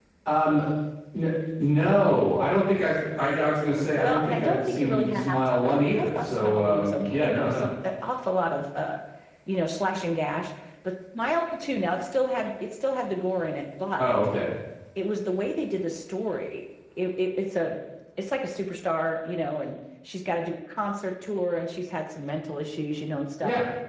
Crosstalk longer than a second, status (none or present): present